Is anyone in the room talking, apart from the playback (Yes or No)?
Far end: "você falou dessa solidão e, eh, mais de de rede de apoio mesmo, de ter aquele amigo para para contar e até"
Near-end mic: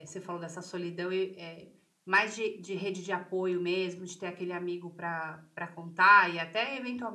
No